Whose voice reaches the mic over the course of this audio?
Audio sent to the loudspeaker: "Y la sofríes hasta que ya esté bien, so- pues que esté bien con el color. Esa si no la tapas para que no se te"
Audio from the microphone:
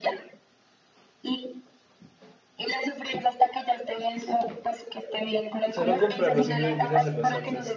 both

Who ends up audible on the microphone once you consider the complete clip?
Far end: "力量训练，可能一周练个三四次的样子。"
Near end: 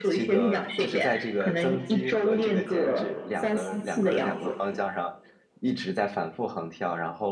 both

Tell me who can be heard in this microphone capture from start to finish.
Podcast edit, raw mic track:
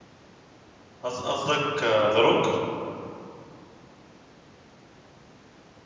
user only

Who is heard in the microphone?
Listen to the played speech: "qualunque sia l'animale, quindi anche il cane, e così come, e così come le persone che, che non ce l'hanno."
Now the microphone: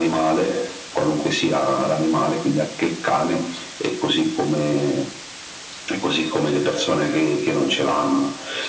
echo only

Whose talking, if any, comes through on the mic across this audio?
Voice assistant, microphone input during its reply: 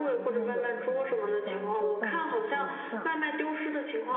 both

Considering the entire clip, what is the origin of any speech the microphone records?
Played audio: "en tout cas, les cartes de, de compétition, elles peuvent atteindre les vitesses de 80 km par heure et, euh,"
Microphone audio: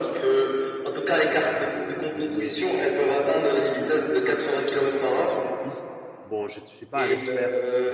both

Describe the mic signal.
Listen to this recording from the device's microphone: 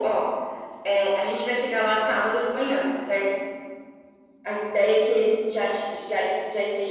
echo only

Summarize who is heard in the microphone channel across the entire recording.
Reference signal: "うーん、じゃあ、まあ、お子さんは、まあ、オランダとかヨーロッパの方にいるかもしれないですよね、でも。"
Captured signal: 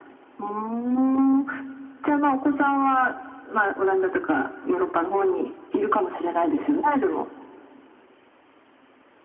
echo only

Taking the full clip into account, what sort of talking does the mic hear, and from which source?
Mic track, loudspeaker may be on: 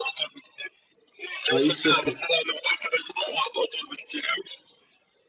both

